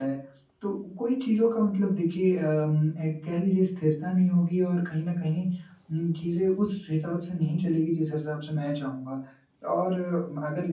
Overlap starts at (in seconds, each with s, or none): none